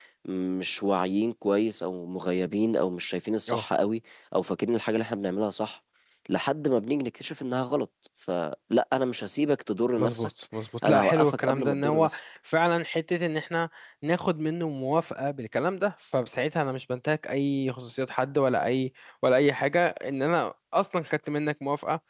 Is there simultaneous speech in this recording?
Yes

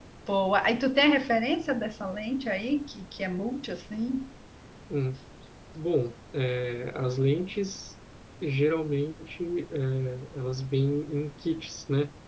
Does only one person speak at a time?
Yes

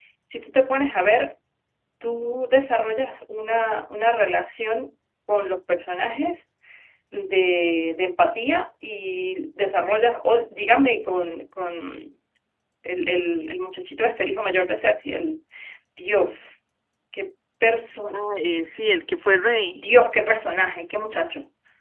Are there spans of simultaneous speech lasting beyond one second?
No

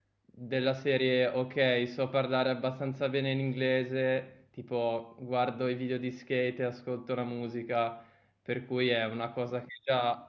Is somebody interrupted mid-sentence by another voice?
No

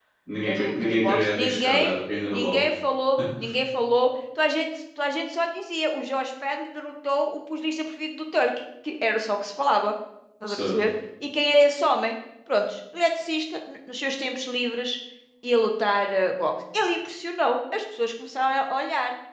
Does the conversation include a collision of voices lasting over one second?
Yes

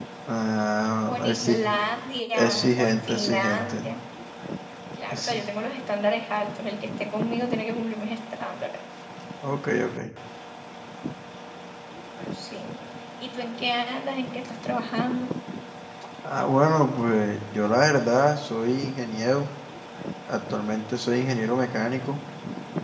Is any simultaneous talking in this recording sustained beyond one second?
Yes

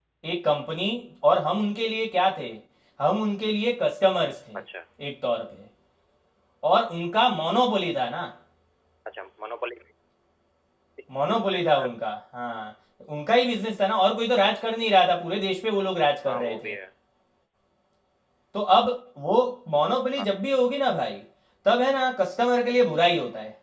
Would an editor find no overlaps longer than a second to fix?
Yes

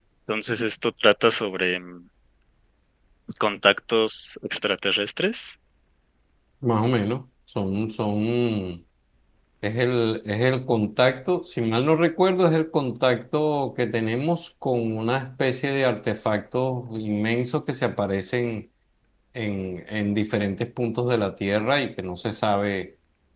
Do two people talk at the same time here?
No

